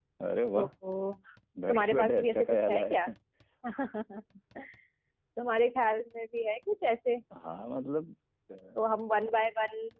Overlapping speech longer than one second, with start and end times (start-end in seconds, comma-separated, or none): 1.7-3.0